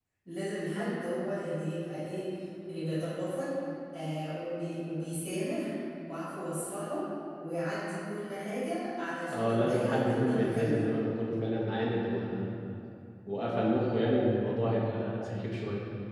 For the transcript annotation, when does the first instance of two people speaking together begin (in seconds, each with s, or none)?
9.3 s